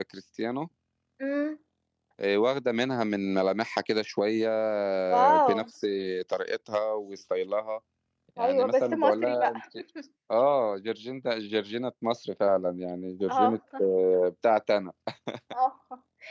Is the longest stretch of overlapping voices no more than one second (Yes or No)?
No